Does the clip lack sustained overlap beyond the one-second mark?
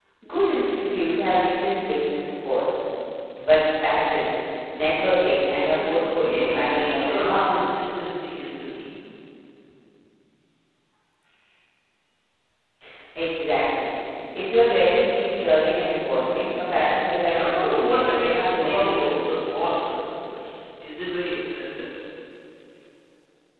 No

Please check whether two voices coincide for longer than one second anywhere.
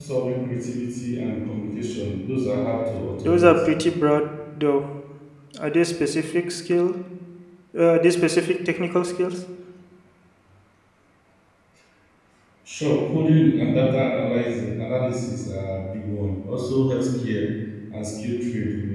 No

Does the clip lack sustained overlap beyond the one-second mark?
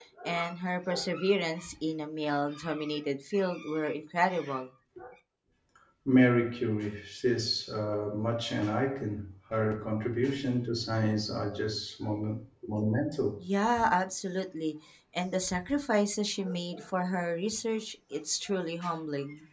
Yes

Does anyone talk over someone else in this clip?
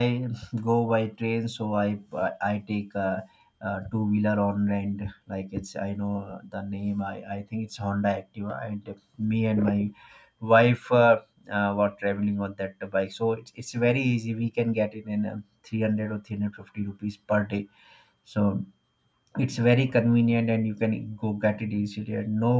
No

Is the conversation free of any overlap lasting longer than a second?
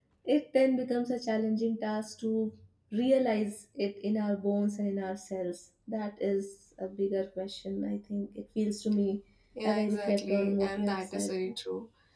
No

